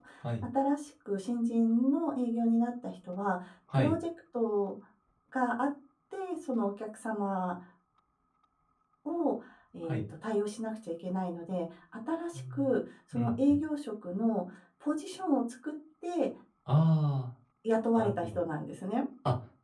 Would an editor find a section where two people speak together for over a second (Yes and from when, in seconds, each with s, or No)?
No